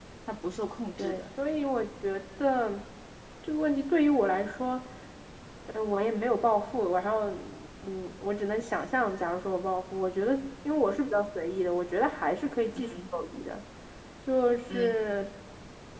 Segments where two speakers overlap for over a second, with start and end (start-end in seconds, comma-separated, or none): none